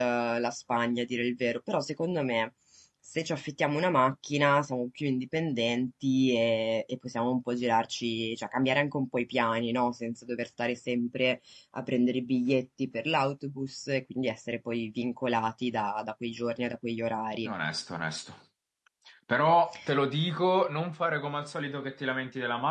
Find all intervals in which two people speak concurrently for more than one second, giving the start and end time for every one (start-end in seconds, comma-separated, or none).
none